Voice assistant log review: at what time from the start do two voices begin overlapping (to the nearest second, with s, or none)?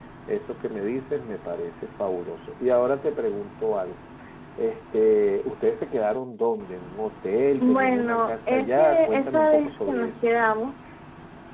8 s